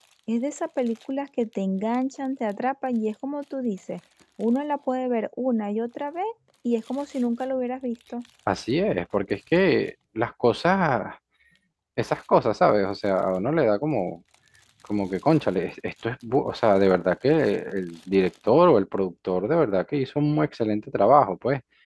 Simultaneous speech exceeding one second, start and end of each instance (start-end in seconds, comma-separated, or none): none